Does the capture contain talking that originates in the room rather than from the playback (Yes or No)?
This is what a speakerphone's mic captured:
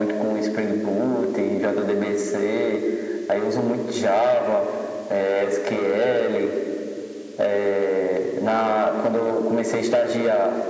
No